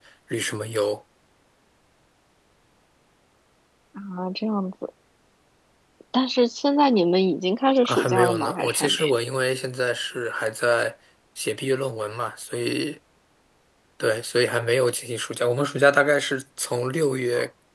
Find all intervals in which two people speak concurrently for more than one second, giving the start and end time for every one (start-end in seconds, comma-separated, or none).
7.8-9.1